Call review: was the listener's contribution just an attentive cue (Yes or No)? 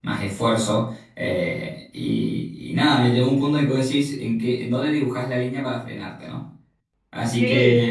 Yes